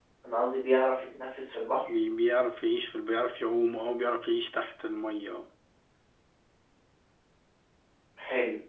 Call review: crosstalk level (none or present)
none